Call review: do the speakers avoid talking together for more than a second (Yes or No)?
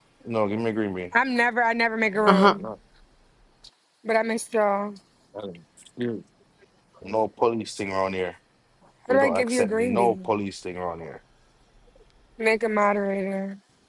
No